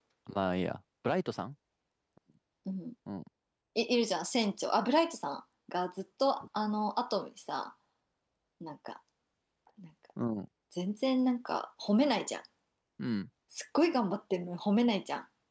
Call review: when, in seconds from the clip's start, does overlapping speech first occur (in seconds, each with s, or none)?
none